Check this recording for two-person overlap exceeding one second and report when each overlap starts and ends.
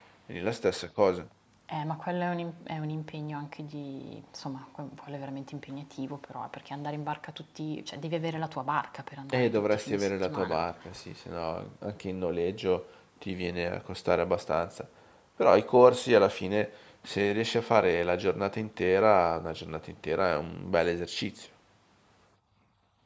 9.3-10.6

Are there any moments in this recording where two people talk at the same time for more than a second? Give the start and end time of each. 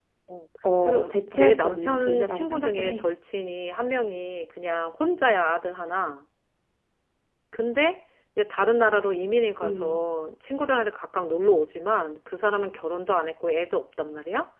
0.8-3.0

